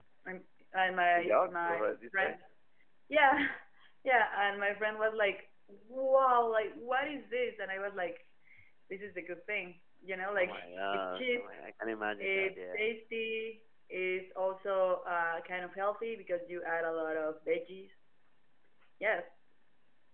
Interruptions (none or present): present